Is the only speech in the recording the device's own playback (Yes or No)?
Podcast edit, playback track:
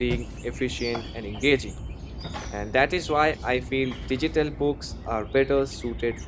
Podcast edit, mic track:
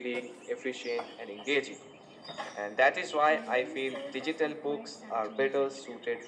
No